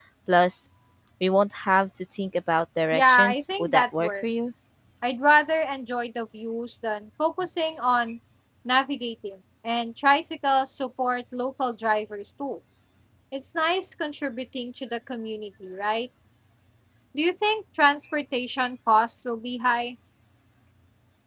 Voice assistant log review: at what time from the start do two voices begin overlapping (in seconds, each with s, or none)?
2.9 s